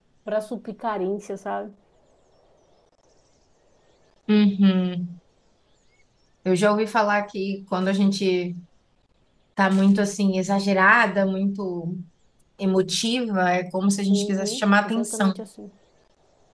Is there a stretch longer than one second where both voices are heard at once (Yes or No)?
Yes